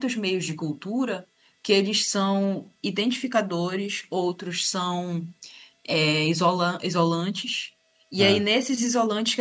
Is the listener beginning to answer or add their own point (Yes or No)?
No